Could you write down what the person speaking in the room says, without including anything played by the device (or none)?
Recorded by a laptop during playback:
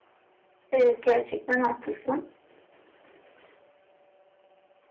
Evet gerçekten haklısın.